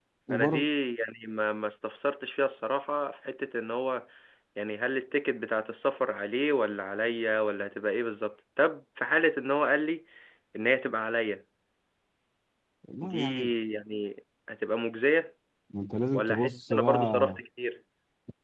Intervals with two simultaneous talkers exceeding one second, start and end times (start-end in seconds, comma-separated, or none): 16.1-17.4